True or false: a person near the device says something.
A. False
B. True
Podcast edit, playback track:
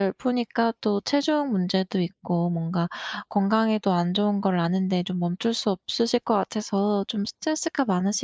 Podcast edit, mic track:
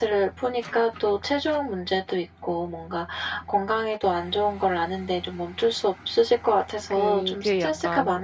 B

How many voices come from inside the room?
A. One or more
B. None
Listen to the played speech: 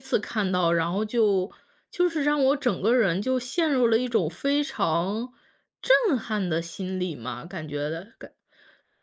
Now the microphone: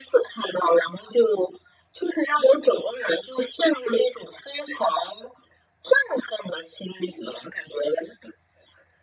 B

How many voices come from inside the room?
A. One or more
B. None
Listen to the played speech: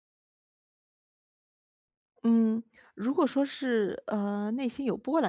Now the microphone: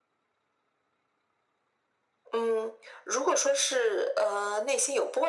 B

